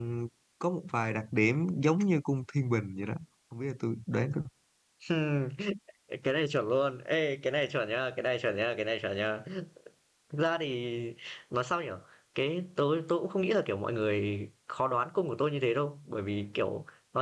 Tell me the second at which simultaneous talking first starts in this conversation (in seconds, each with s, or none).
none